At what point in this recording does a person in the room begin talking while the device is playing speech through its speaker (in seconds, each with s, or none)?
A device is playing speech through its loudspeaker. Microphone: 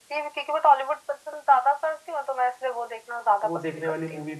3.4 s